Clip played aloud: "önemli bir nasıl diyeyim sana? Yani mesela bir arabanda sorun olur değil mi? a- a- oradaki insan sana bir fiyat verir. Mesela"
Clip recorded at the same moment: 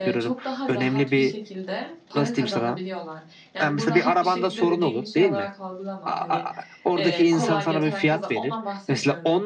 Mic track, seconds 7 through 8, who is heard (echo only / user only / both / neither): both